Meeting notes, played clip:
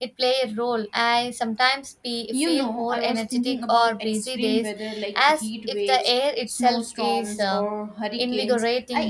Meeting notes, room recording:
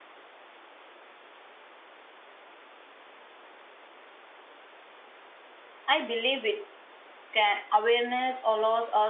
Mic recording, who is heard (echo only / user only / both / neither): user only